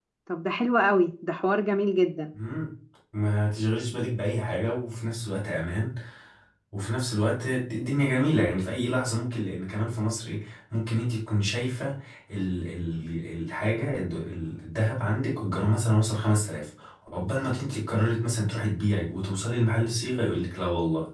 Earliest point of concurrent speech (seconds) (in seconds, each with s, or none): none